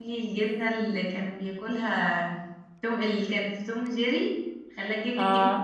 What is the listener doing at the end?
listening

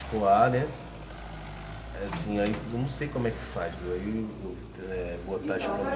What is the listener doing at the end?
taking over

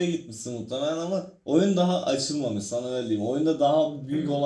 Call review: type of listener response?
listening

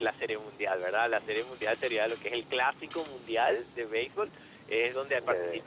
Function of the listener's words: listening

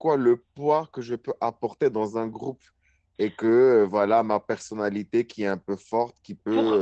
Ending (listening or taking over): listening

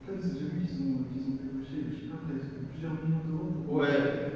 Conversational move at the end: taking over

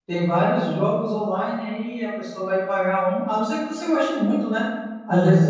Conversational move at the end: listening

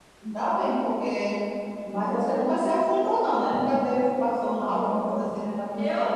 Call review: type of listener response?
taking over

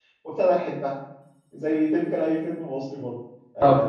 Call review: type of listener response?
listening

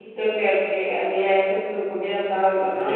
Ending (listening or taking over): taking over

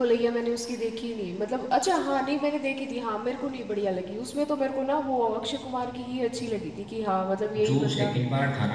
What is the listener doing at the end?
taking over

